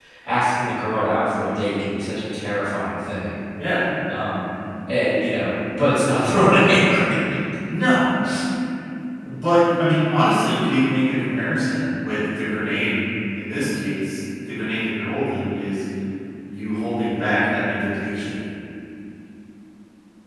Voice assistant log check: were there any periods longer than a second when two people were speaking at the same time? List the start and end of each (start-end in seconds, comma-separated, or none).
none